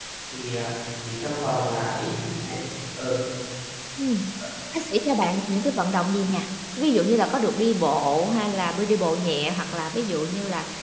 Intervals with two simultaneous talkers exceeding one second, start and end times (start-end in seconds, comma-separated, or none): none